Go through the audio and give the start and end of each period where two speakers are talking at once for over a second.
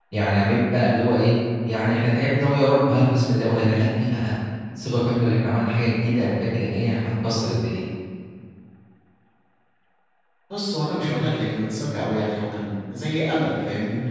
none

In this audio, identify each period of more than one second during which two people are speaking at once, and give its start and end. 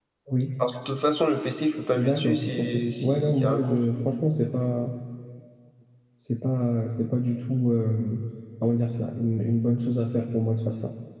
2.0-3.8

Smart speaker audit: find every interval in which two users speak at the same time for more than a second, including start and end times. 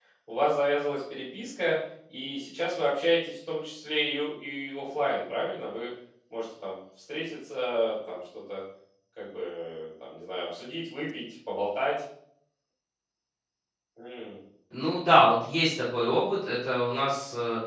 none

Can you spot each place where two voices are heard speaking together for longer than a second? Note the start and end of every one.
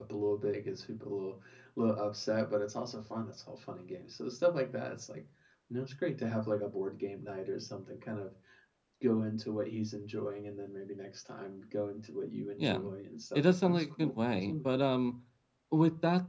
13.3-14.7

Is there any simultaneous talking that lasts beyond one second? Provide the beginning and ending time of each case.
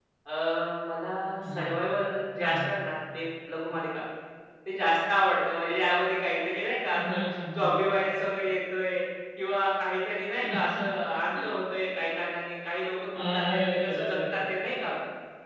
13.2-14.4

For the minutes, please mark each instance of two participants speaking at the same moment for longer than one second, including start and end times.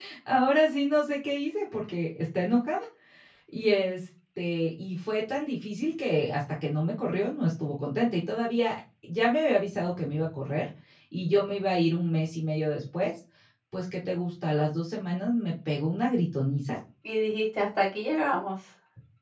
none

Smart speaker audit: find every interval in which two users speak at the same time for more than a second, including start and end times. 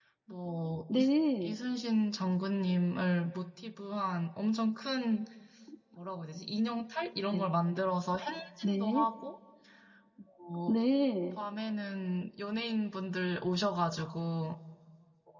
none

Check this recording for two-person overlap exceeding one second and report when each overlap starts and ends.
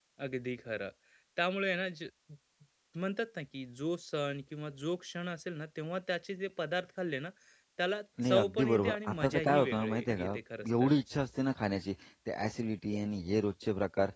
8.2-10.9

